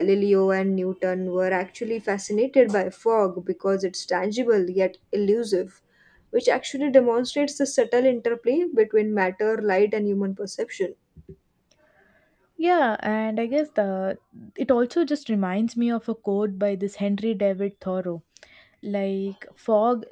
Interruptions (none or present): none